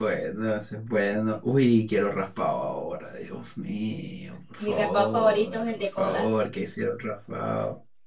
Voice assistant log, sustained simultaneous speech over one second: present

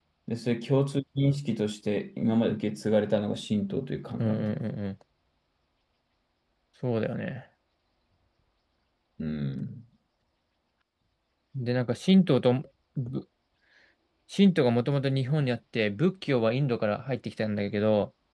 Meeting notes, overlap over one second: none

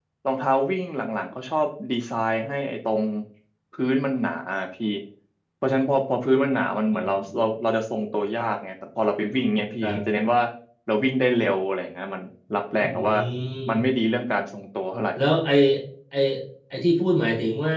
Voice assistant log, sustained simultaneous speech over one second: none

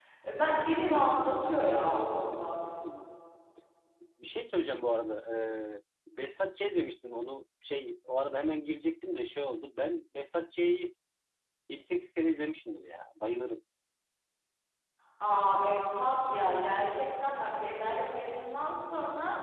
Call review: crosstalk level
none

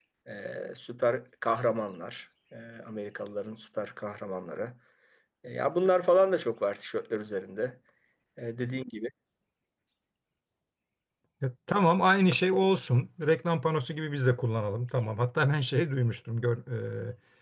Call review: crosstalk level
none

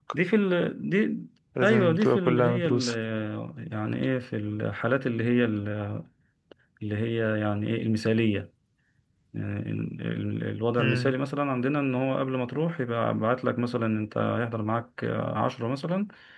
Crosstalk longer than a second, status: present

